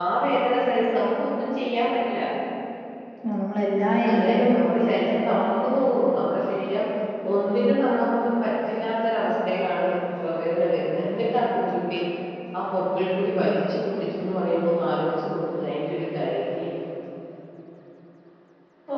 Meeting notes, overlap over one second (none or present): present